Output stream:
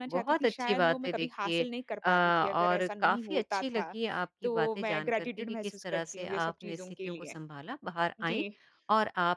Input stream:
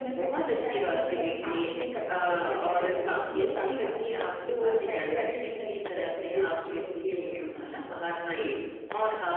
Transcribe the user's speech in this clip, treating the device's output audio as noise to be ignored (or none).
none